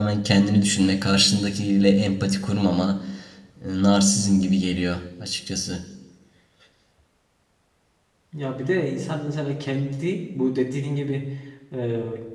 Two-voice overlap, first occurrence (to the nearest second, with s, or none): none